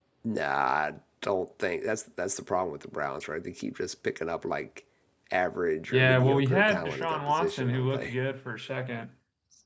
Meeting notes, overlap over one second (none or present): present